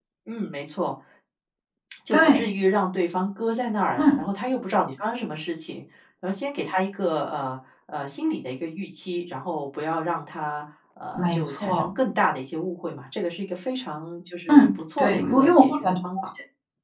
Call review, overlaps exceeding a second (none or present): present